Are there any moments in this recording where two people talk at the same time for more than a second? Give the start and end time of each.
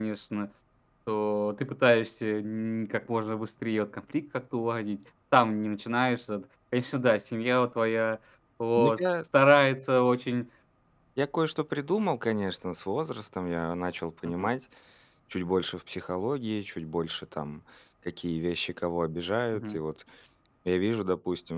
none

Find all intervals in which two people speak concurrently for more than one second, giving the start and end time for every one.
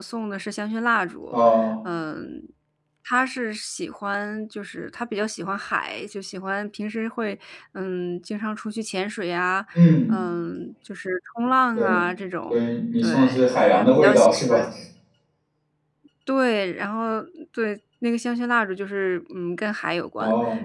13.0-14.6

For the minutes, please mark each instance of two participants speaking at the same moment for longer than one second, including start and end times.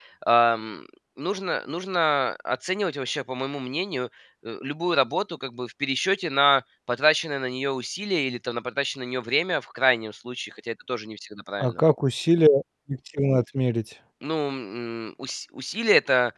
none

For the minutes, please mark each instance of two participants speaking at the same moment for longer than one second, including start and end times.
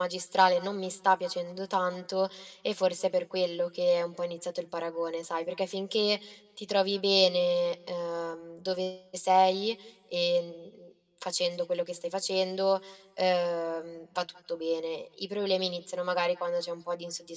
none

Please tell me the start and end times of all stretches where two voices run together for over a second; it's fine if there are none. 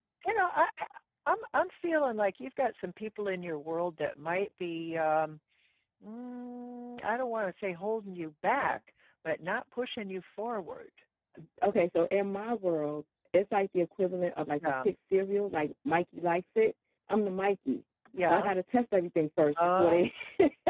none

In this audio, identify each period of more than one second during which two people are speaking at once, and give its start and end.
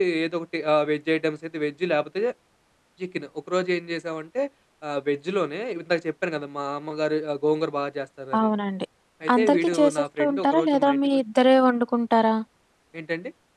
9.4-11.2

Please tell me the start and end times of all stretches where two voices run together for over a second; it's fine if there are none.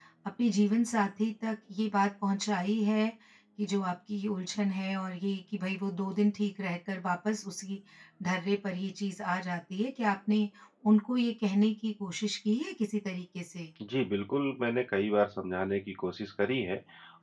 none

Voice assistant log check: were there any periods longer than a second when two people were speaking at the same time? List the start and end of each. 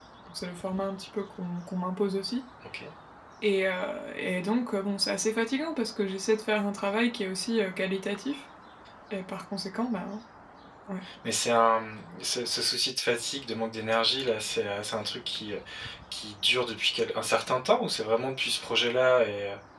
none

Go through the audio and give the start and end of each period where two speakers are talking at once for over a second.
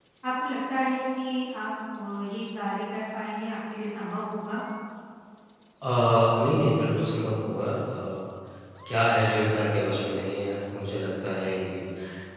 none

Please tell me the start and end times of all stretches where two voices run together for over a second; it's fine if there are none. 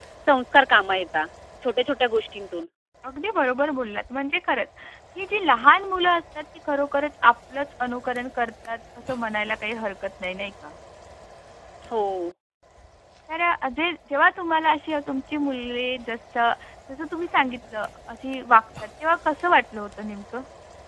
none

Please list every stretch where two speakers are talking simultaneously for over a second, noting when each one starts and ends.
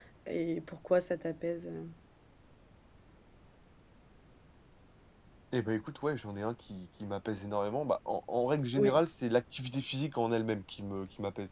none

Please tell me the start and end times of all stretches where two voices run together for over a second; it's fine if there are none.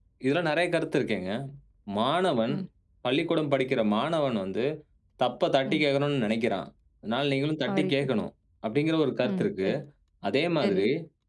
none

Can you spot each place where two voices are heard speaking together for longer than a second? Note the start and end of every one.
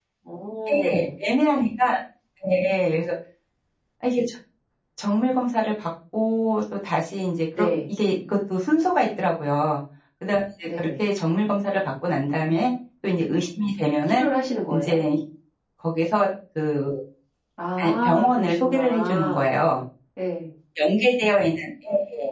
17.8-19.5

